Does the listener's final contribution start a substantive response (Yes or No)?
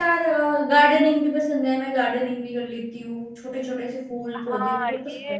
Yes